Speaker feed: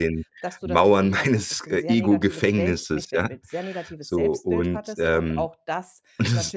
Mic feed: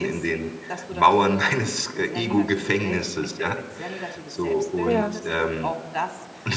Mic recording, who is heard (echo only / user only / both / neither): both